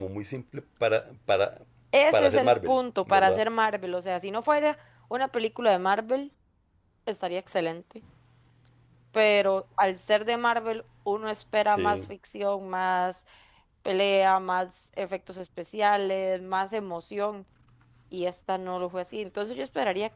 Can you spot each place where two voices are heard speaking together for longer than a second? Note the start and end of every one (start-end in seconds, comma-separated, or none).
2.1-3.4